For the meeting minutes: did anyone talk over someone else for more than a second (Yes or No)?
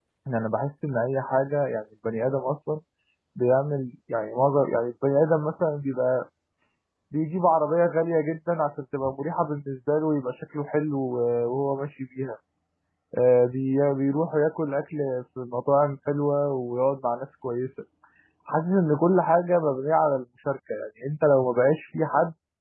No